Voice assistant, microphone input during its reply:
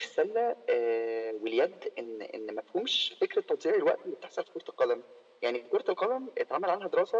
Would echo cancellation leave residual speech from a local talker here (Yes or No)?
No